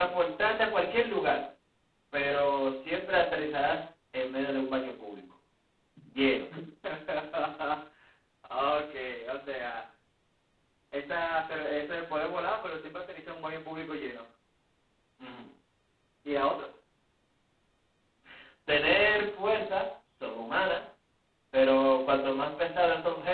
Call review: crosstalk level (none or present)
none